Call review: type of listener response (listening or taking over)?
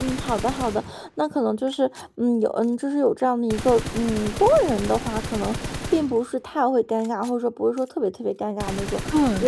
taking over